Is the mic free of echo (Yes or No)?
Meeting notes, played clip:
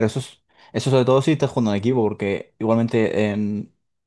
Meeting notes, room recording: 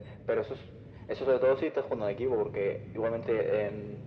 No